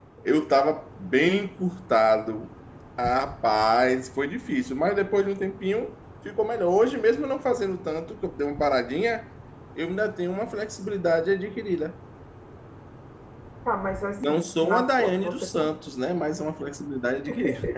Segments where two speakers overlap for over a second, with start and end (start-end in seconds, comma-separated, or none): 14.2-15.7